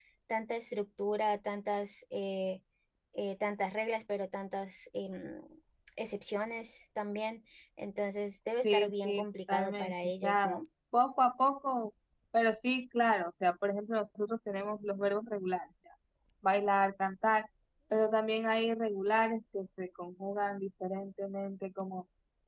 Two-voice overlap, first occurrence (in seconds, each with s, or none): 8.6 s